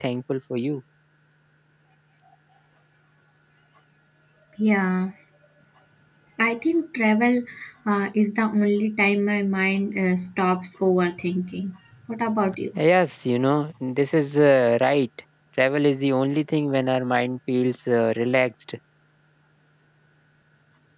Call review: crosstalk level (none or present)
none